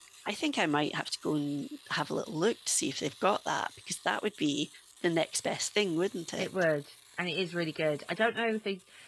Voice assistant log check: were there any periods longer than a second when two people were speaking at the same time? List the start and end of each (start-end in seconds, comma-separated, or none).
none